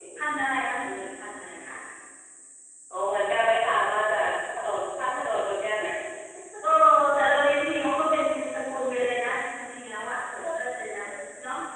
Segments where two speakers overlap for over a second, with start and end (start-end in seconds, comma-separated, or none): none